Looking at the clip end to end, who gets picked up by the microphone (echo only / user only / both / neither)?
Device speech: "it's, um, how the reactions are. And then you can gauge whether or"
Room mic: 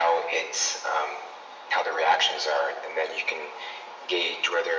echo only